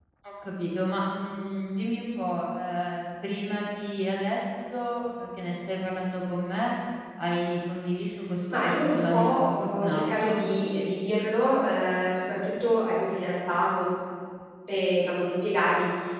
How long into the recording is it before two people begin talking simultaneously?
8.5 s

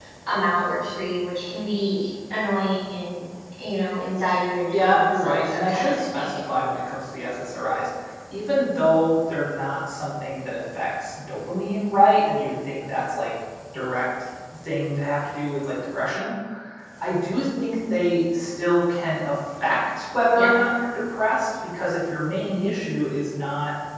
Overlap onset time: 4.7 s

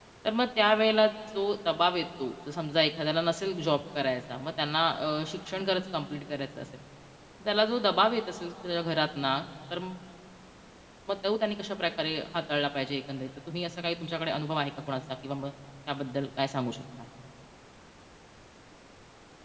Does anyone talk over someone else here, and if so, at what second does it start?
none

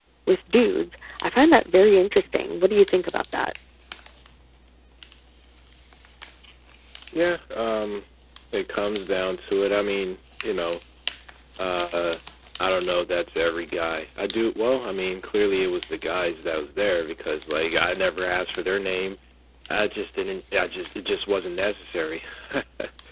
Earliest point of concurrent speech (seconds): none

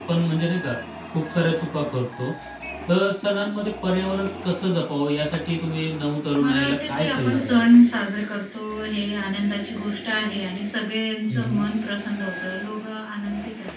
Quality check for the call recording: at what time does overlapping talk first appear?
6.4 s

